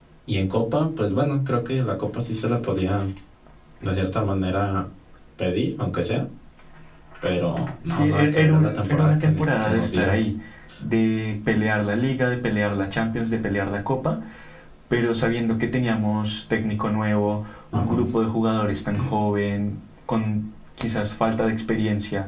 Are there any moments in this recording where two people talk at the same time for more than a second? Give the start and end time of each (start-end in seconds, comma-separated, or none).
7.8-10.2